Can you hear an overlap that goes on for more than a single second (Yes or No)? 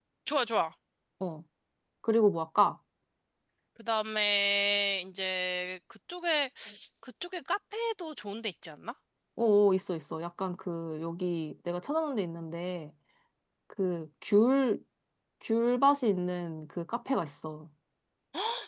No